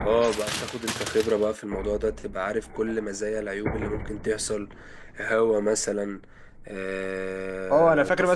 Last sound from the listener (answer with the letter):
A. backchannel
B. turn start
B